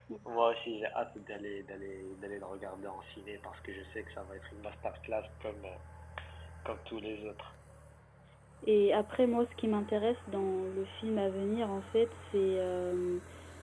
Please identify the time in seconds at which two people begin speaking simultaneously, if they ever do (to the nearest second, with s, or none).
none